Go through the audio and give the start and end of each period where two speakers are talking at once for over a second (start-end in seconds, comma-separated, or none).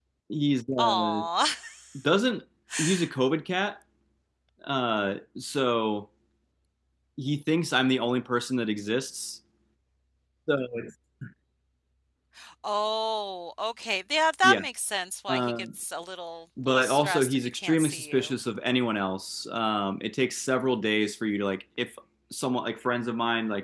16.6-18.3